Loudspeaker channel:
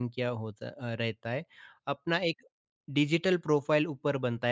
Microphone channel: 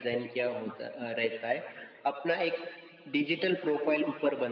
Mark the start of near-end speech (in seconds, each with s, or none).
none